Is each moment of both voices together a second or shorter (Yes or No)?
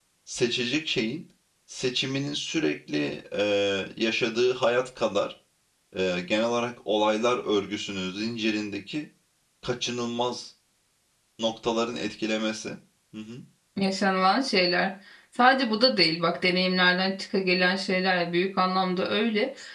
Yes